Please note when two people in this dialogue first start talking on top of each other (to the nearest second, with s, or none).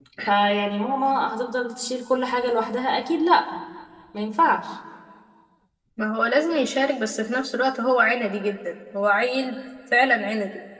none